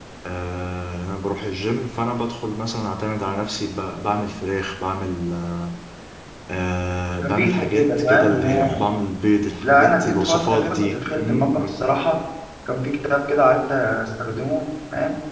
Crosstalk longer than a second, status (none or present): present